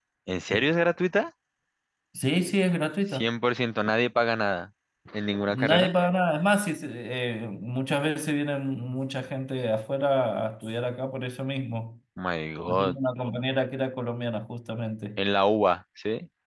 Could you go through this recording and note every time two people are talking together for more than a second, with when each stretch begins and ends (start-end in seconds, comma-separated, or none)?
none